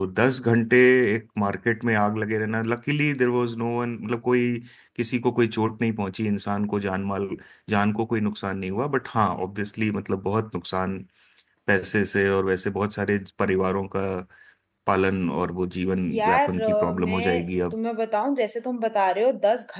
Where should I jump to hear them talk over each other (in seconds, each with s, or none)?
16.1 s